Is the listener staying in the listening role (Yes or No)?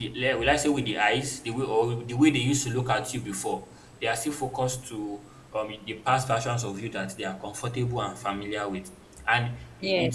Yes